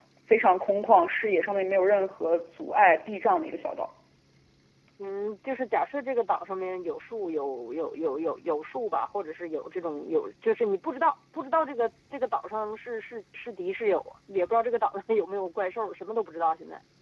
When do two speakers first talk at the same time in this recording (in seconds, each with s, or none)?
none